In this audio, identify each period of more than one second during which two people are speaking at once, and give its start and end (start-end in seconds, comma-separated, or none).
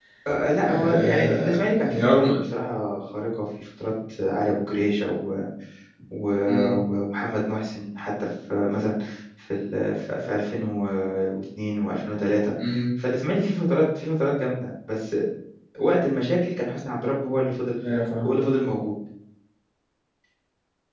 0.6-2.3